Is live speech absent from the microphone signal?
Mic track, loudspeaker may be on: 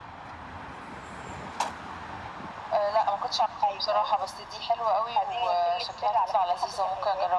Yes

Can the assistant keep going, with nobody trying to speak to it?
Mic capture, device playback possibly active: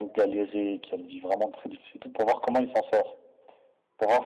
Yes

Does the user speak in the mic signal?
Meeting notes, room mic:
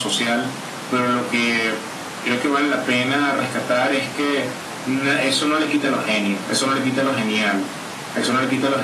No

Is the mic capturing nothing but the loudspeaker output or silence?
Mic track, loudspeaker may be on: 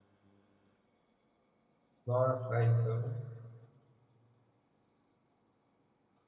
No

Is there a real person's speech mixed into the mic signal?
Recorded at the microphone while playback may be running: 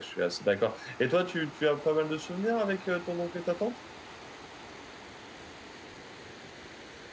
Yes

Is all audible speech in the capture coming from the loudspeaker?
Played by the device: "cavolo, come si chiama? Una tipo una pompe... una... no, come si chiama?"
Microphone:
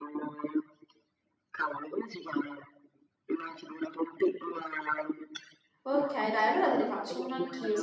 No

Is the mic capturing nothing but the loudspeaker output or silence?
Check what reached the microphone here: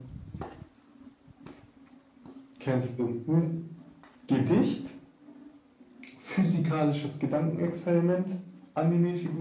Yes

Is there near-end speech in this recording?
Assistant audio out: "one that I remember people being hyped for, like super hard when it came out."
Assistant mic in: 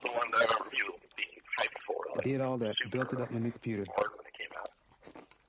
Yes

